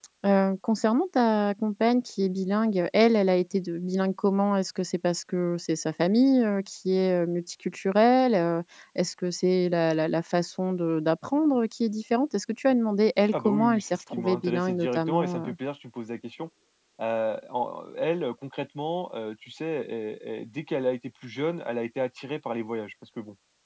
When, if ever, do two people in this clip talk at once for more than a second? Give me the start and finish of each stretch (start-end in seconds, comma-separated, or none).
13.3-15.6